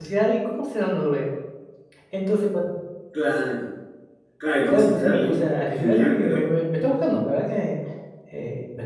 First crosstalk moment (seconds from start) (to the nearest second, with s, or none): 5 s